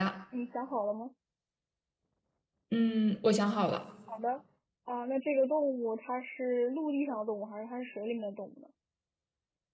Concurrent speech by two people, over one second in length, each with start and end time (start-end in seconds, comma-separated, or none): none